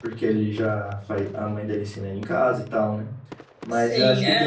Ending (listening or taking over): listening